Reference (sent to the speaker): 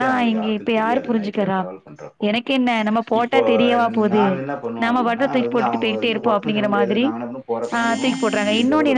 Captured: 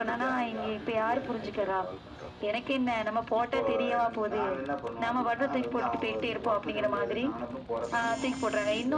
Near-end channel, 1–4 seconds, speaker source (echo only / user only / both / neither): echo only